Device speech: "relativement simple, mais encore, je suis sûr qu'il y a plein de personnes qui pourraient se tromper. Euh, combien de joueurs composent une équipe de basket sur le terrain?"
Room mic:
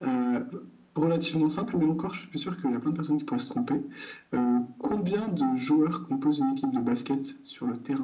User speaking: No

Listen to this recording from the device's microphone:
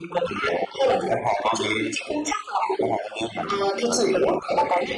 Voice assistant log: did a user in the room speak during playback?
No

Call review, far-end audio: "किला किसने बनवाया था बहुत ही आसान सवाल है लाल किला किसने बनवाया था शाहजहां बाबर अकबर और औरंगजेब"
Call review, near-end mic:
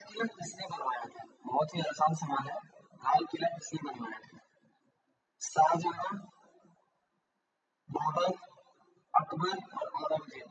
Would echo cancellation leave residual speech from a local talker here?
No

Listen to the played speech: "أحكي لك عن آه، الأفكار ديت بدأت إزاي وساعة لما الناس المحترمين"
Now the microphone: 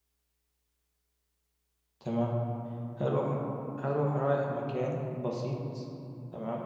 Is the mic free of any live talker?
No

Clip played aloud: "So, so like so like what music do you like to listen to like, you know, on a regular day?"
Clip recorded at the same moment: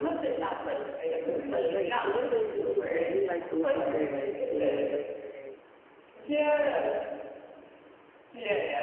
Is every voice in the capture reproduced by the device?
No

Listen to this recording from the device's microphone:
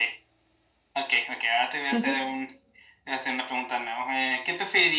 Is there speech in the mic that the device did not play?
Yes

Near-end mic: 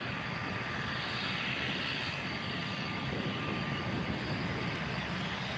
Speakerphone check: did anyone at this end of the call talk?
No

